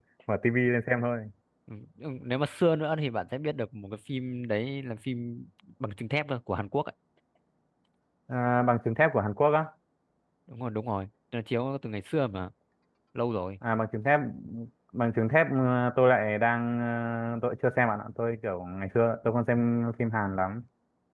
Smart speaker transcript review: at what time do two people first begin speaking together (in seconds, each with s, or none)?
none